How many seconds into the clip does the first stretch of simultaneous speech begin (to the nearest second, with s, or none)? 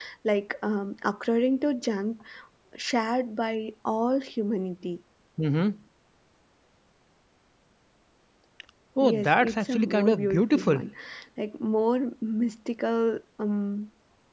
9 s